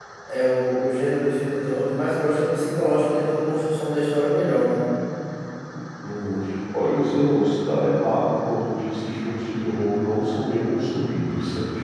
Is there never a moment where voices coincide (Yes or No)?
Yes